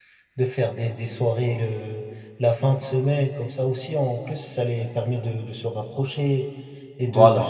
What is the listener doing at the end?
listening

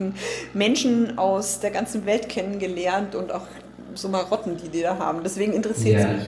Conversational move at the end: taking over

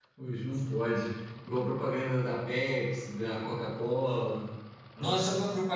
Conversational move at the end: taking over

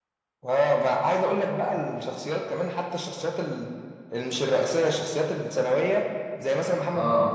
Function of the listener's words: listening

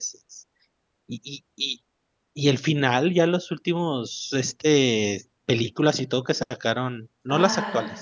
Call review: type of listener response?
listening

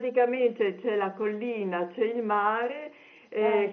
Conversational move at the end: listening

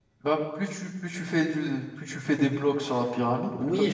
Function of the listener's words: taking over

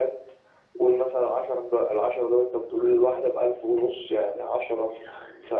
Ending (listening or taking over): listening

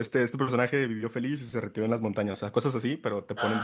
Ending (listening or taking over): listening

